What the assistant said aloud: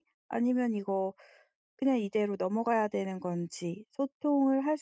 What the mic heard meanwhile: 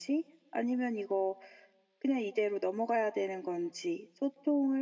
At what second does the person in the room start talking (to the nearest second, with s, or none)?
none